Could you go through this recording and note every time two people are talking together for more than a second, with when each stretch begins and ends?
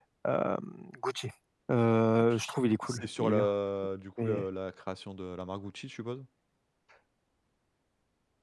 2.0-3.5

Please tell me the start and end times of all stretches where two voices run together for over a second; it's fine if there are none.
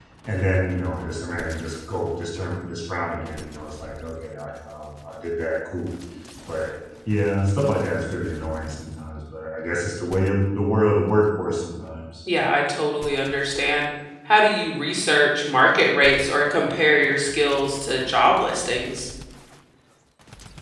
none

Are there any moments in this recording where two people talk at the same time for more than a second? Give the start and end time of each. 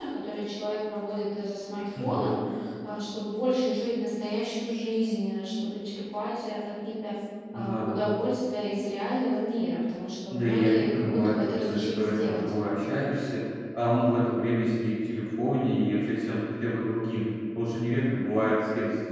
10.3-12.5

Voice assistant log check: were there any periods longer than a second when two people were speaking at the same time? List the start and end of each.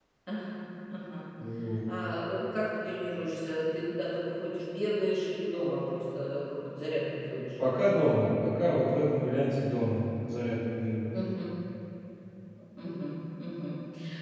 none

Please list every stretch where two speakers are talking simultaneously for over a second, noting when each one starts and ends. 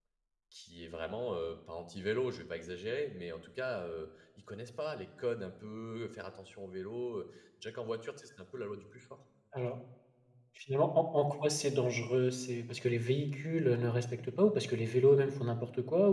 none

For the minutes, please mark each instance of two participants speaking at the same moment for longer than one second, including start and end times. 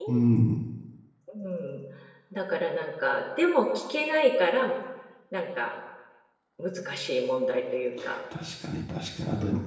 none

